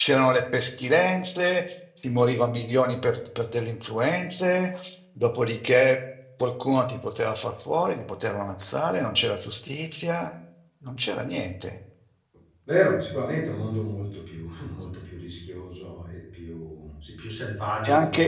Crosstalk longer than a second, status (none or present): none